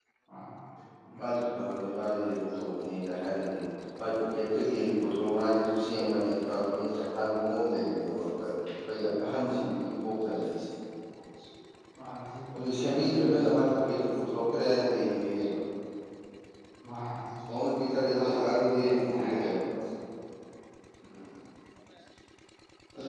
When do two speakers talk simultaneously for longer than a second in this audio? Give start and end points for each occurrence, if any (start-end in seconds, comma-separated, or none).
12.5-13.8, 18.1-19.4